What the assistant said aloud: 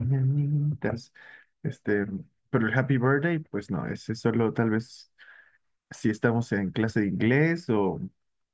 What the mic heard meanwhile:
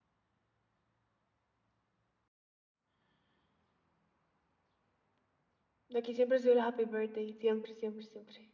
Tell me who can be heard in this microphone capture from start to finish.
user only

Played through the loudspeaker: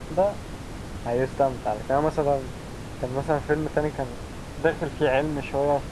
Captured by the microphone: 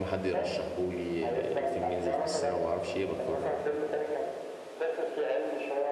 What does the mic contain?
both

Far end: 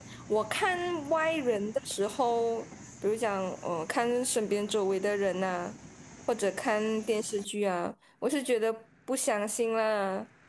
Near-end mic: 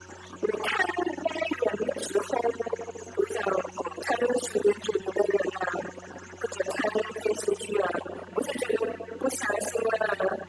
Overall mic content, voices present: echo only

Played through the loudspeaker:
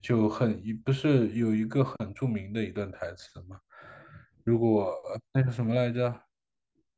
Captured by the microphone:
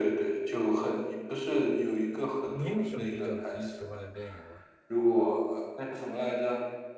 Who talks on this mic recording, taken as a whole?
both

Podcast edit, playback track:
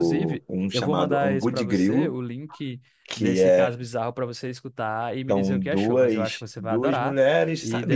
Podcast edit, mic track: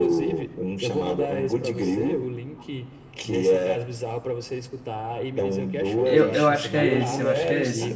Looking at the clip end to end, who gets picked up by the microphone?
both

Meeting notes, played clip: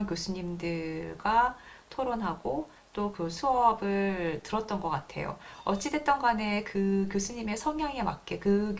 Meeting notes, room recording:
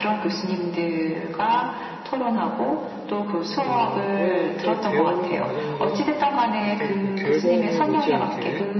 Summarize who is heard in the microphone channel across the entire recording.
both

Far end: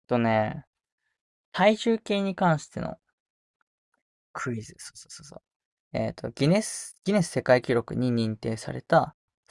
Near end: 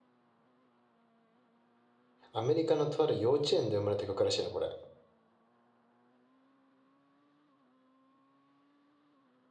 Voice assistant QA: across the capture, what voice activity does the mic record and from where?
user only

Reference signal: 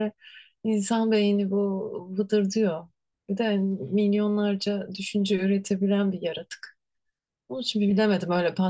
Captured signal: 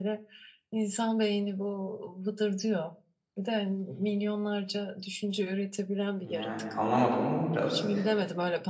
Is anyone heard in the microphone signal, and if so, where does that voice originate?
both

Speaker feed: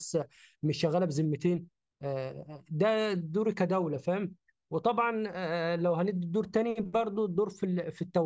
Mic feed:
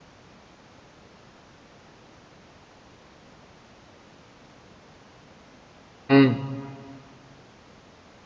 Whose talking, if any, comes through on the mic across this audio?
user only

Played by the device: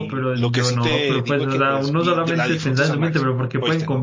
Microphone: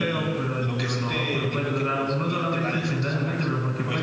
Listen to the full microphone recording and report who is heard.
echo only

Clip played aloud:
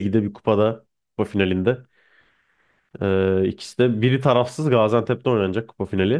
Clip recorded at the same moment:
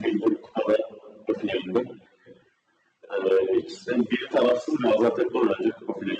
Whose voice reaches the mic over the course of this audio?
echo only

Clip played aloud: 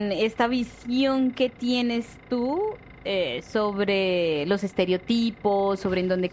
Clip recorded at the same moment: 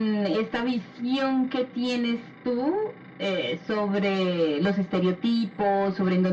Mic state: echo only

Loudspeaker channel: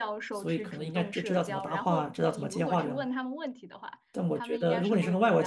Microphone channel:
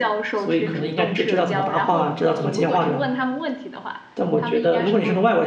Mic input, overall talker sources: echo only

